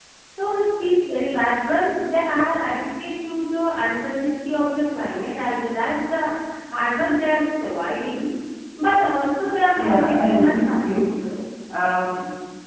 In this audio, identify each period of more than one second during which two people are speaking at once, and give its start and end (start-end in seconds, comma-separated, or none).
9.8-11.0